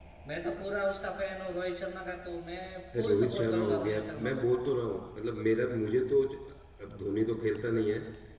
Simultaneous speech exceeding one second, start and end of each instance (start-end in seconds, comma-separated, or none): 2.9-4.4